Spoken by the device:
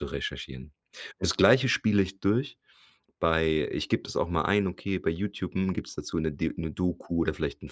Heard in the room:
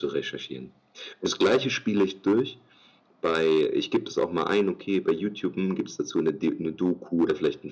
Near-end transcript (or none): none